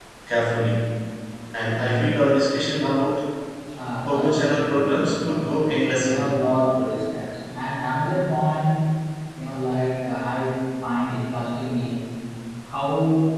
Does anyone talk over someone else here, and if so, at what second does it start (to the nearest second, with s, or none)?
4 s